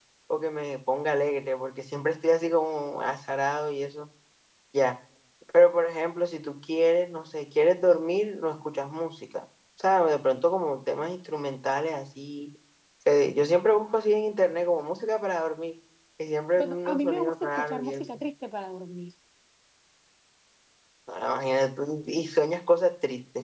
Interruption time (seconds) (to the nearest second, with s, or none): 17 s